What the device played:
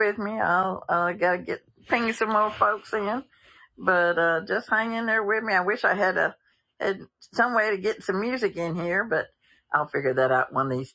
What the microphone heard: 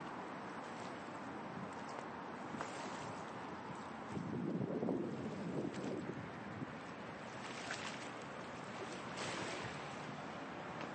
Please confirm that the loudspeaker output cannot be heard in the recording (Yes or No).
Yes